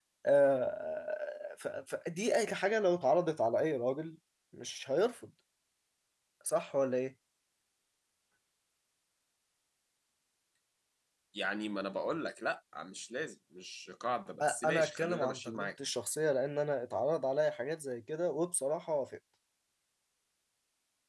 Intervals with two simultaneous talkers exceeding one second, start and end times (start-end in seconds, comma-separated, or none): 14.4-15.7